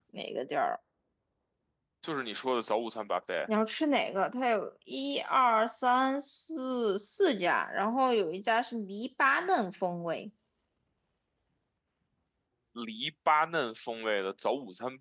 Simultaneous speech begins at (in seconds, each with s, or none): none